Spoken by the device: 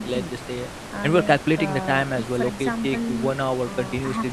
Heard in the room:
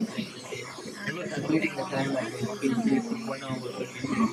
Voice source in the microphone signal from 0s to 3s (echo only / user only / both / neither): both